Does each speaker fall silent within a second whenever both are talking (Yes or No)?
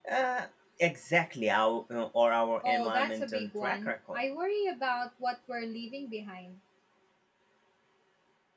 No